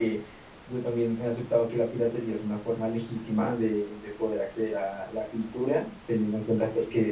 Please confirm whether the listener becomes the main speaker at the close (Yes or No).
No